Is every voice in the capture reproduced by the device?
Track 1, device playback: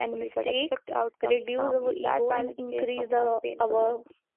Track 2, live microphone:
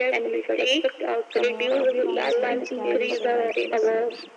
No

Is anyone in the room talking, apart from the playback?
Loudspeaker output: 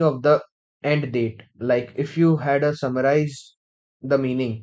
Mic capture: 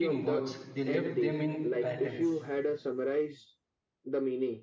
Yes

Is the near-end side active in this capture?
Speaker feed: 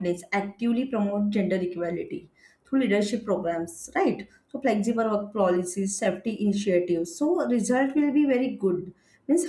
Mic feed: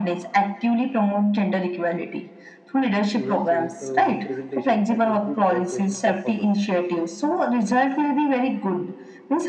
Yes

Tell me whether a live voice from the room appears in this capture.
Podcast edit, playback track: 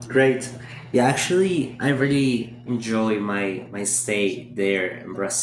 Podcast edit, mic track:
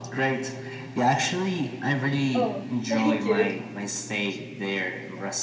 Yes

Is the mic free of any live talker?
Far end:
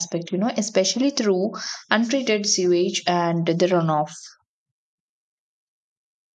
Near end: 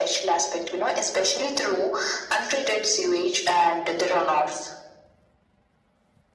Yes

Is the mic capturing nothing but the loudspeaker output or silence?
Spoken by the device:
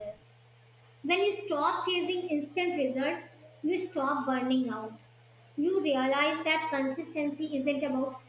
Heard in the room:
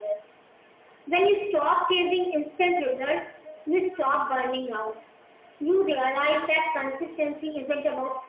Yes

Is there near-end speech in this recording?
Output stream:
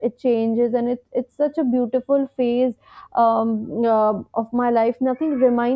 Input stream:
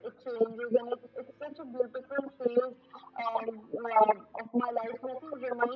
No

